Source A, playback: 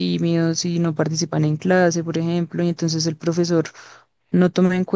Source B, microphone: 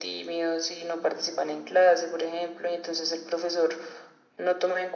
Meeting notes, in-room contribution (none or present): none